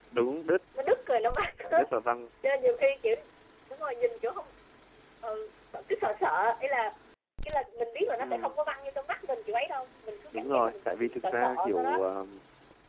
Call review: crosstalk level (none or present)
present